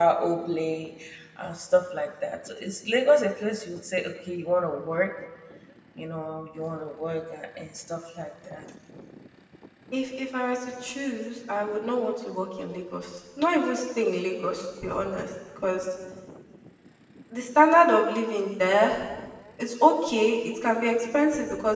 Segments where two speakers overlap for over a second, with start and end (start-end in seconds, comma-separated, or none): none